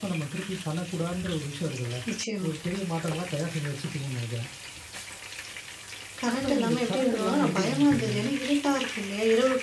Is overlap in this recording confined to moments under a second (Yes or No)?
No